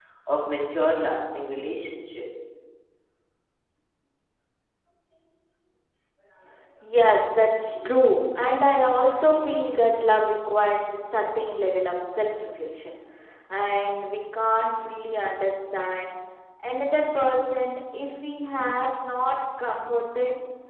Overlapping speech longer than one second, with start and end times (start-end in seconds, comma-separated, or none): none